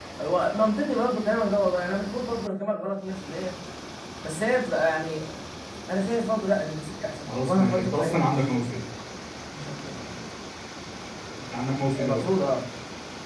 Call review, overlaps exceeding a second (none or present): present